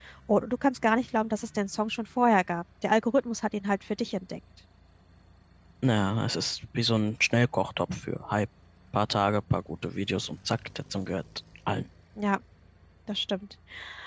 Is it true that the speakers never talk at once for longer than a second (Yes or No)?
Yes